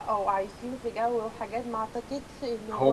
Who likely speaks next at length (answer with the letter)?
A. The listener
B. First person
A